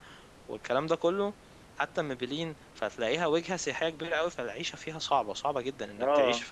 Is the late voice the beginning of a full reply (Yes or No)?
No